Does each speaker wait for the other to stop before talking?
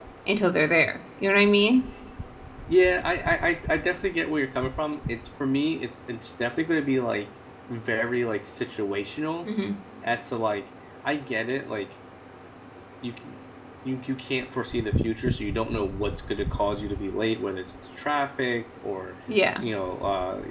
Yes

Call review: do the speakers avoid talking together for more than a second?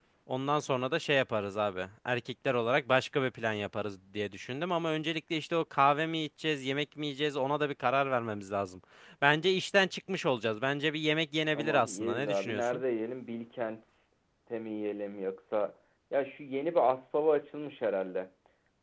No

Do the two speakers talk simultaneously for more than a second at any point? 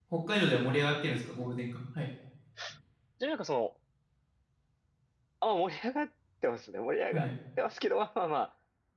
No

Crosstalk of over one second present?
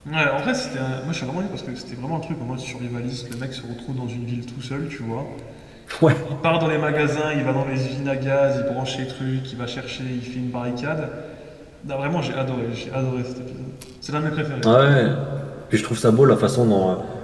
No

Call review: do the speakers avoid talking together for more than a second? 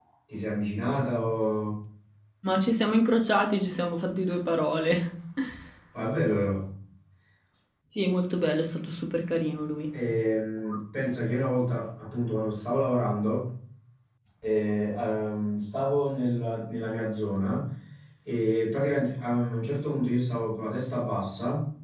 Yes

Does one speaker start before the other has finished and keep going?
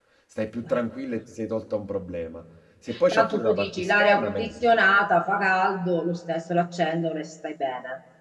Yes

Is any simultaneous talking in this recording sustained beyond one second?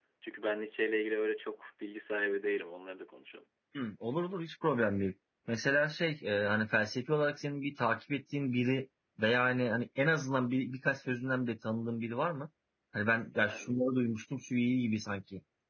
No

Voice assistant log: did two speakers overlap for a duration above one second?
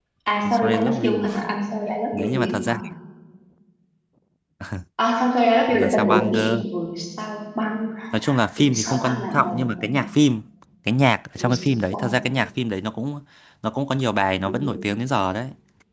Yes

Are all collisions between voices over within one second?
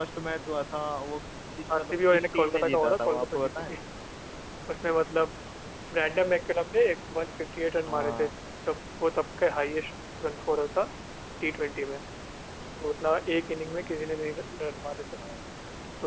No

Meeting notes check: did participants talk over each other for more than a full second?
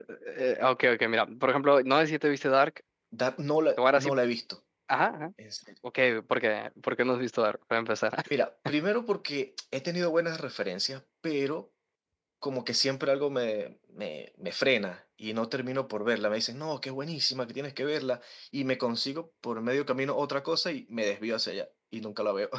No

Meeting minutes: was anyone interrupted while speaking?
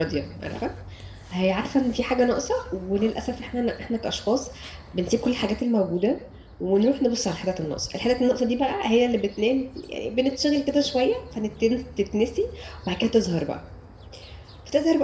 No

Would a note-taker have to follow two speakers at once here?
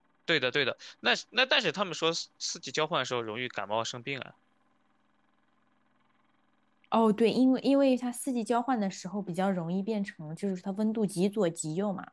No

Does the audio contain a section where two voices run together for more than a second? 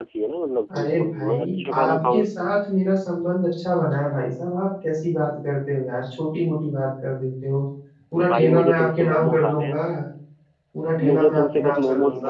Yes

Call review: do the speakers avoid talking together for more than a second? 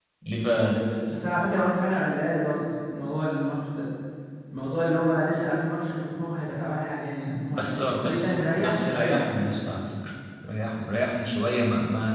No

